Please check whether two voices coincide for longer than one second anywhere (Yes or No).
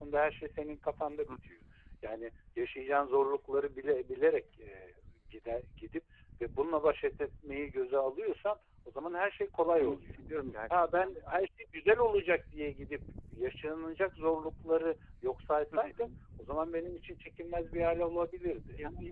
No